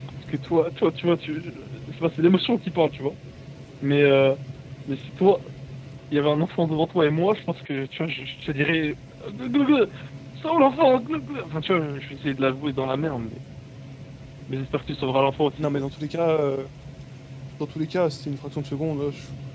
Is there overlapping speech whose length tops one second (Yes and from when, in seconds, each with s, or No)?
No